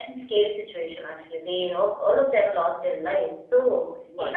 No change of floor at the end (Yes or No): Yes